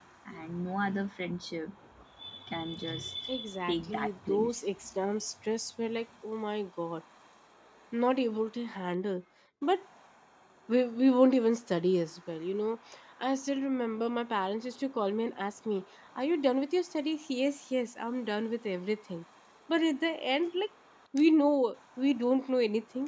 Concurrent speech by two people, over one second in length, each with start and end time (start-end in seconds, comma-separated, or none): 3.3-4.6